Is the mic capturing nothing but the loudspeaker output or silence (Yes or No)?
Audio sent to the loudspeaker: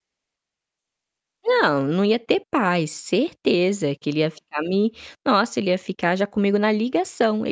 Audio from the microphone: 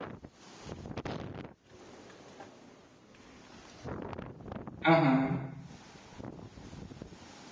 No